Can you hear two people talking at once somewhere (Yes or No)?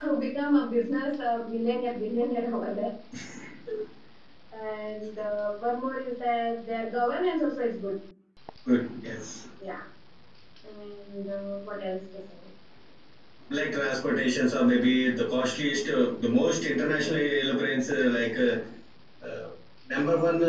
No